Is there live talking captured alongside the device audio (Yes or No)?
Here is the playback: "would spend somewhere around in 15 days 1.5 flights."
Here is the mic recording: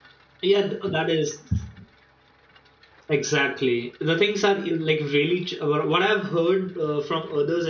Yes